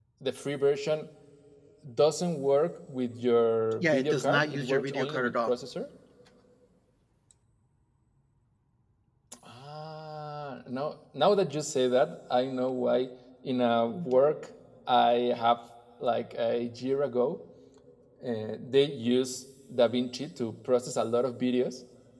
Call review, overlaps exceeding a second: present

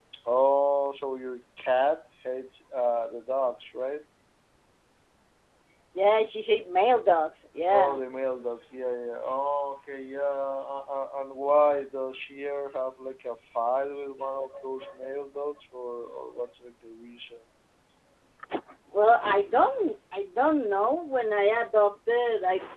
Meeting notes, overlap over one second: none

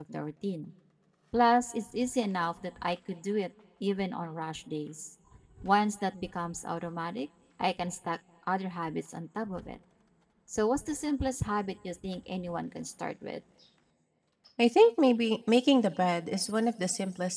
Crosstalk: none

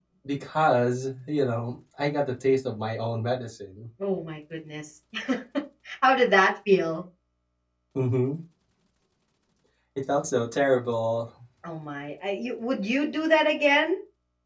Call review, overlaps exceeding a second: none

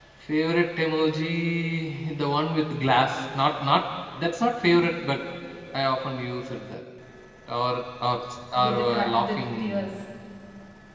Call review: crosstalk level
present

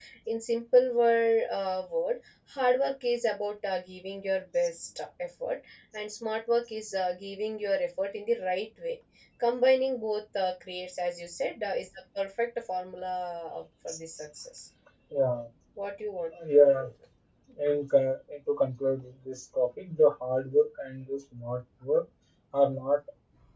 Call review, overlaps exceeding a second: none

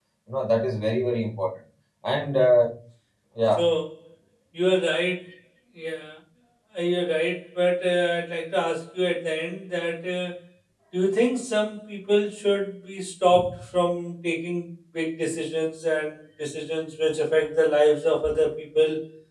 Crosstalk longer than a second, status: none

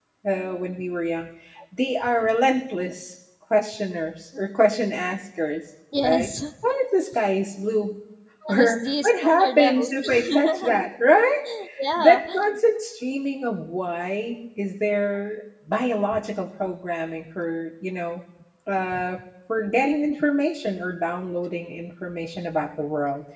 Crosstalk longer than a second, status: present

